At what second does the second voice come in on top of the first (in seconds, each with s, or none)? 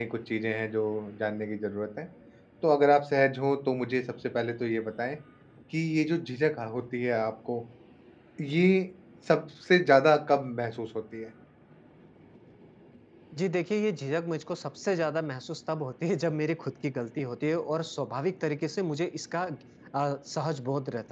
none